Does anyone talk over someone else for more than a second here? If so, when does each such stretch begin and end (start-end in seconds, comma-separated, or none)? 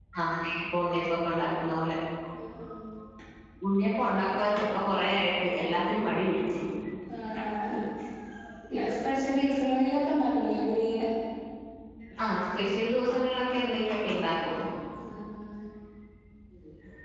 none